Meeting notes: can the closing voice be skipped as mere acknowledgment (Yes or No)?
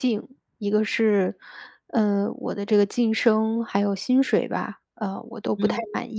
Yes